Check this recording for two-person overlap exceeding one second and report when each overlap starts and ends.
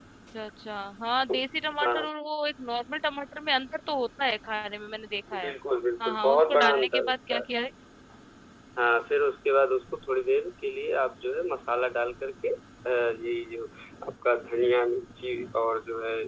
6.1-7.4

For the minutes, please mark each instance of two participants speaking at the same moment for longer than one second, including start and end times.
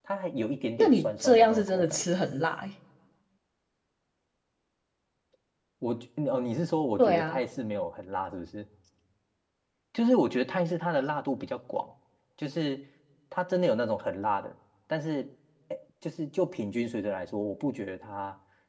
0.8-2.0

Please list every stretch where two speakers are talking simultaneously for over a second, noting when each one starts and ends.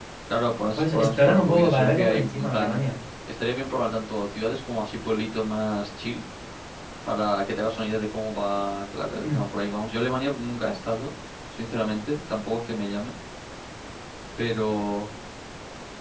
0.7-2.8

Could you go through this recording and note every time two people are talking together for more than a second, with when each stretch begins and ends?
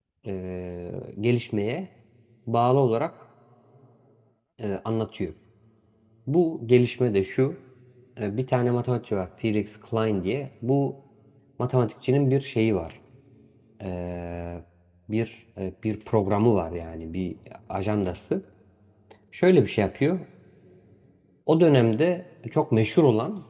none

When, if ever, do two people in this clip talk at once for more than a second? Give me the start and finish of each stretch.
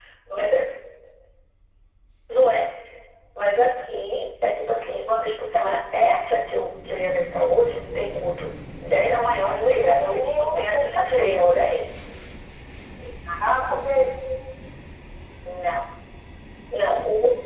9.4-11.5

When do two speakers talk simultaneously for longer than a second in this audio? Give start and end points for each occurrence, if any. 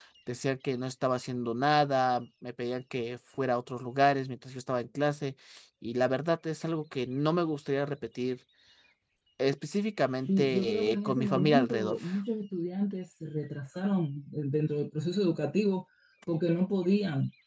10.3-11.9

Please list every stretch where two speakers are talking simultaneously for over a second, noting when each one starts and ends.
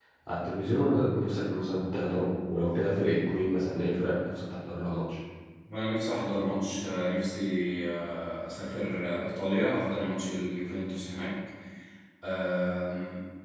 none

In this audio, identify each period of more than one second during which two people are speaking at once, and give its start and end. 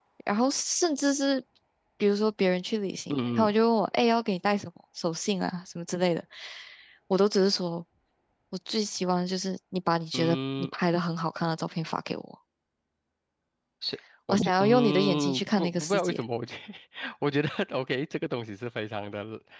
14.3-16.2

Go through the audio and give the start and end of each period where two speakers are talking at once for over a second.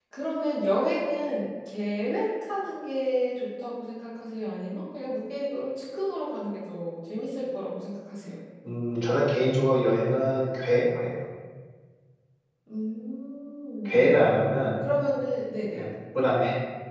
none

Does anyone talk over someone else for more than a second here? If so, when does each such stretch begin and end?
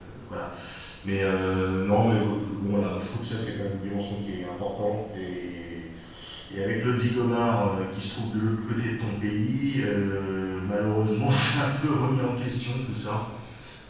none

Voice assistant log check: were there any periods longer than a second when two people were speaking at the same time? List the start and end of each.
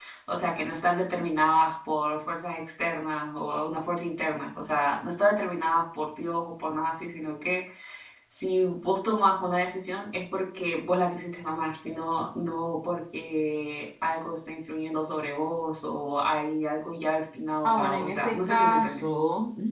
17.6-19.0

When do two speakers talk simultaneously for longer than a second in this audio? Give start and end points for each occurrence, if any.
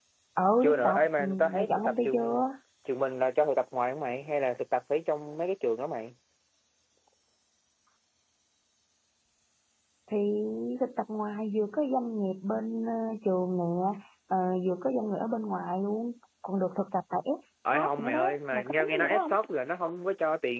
0.6-2.4, 17.7-19.3

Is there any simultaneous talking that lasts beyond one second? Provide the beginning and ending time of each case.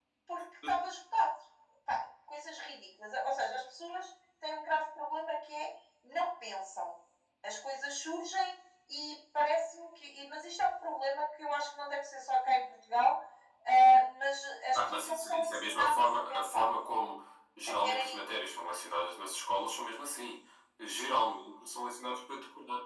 14.7-16.7

